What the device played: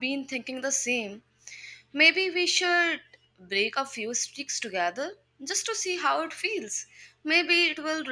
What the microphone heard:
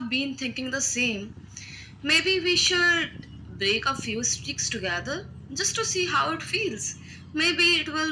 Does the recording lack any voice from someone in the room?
Yes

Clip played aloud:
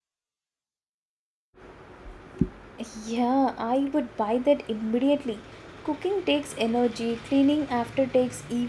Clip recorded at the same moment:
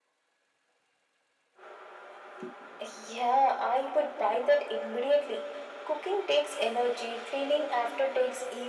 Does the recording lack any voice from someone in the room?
Yes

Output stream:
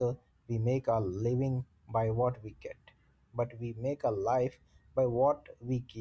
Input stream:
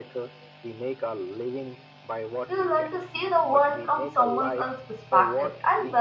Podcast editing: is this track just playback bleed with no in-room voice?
No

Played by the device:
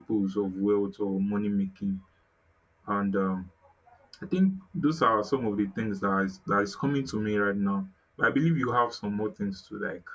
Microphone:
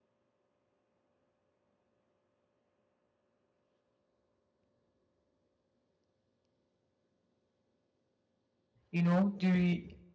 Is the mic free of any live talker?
No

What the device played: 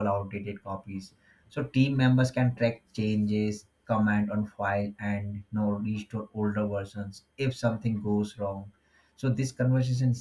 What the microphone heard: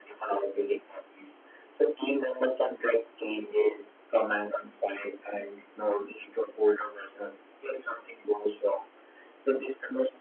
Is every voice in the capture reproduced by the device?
Yes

